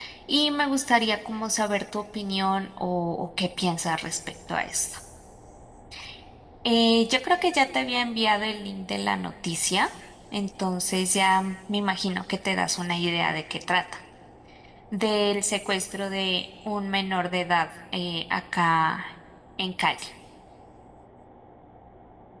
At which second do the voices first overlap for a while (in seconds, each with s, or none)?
none